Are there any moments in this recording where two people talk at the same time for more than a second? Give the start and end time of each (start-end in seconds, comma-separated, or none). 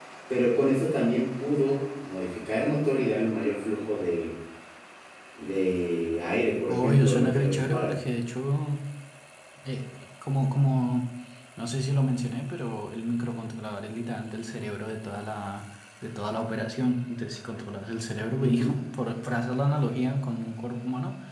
6.7-7.9